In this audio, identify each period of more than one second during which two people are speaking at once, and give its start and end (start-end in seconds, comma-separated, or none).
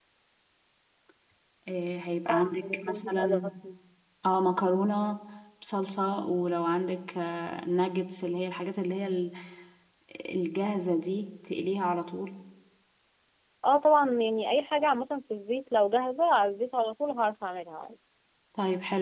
2.3-3.5